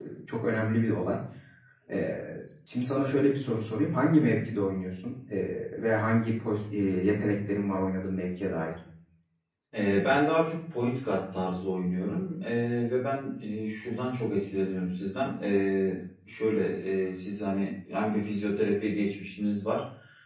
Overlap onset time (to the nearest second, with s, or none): none